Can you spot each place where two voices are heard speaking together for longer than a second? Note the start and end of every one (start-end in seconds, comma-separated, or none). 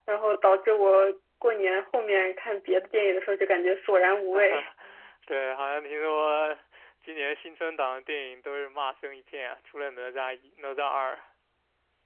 none